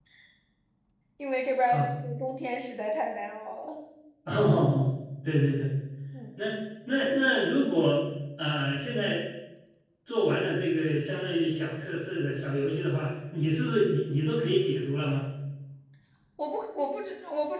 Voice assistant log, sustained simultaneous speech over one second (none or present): none